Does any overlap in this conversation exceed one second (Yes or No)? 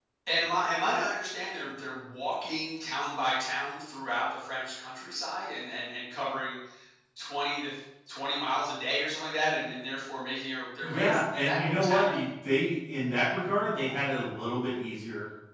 Yes